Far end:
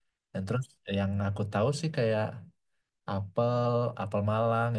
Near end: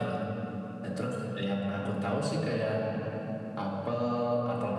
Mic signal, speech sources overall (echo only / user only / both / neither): echo only